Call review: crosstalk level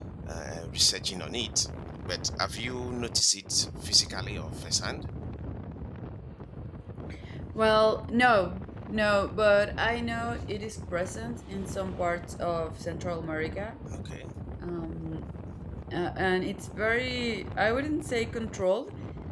none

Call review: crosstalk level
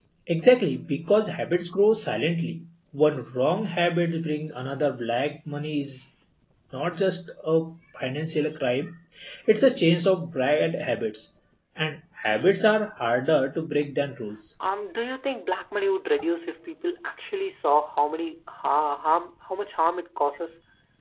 none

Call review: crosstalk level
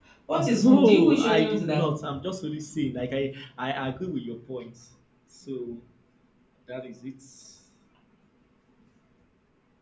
present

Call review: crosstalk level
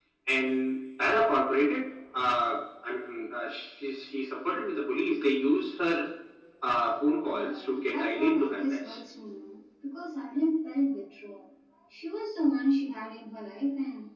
present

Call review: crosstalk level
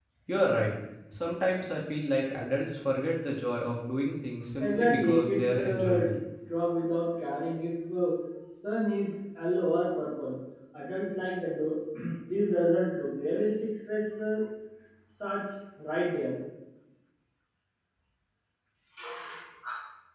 present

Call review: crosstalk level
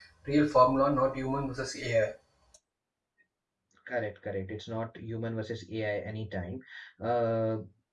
none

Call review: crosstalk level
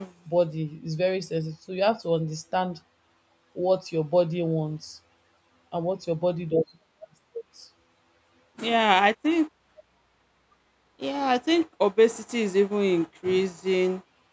none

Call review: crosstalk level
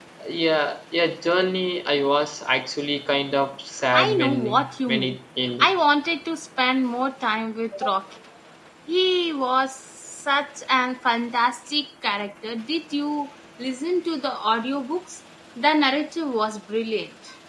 present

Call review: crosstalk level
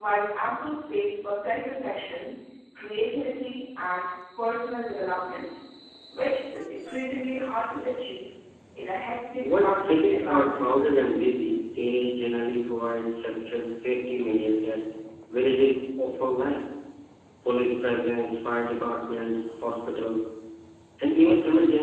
present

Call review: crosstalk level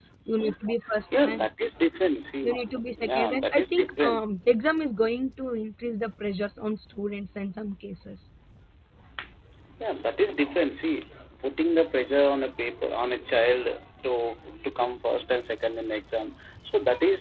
present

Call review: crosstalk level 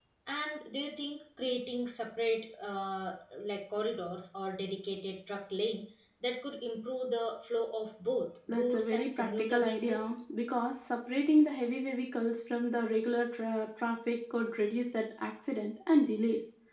present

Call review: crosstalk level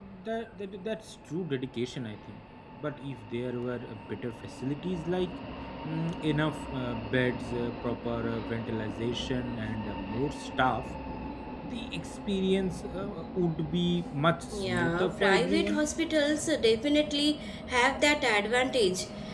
present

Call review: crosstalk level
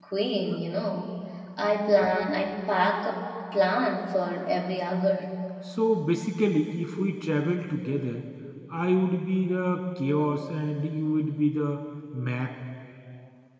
none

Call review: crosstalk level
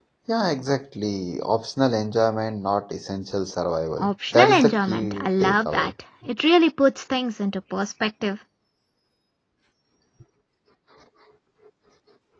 present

